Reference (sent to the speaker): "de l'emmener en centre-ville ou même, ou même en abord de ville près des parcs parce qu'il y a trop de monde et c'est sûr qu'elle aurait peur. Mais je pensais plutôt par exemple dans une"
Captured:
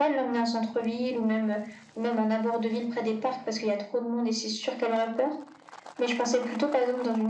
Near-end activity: none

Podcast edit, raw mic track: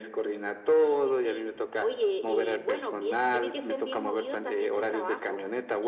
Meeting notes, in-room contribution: none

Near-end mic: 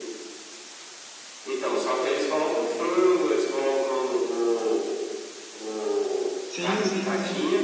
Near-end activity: present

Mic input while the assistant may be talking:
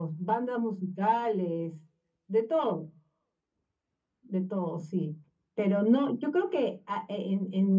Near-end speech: none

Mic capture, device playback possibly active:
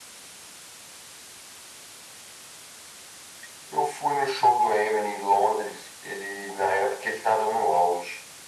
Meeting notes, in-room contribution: none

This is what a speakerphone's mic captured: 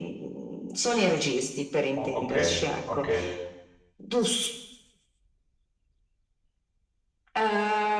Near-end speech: present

